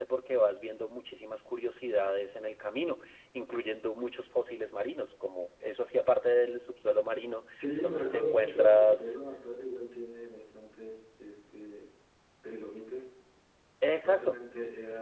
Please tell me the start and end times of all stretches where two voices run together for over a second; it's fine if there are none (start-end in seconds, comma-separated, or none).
7.8-9.1